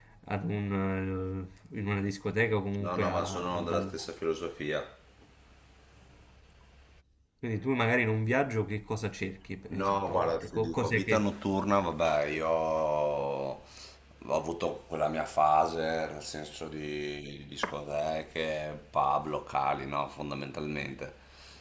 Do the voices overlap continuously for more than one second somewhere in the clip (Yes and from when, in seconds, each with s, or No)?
Yes, from 2.8 s